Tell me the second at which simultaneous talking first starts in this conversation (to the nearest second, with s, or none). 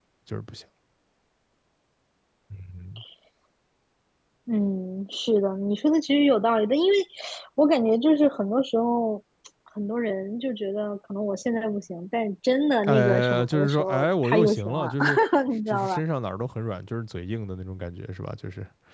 13 s